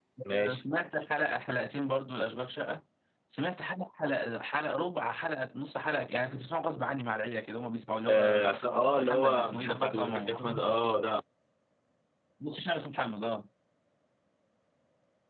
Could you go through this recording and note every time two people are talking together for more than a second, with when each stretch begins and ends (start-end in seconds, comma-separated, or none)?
9.0-10.4